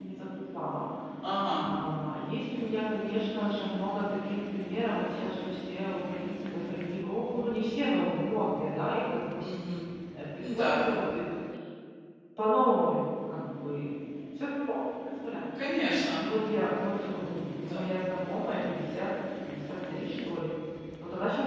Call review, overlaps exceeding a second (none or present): none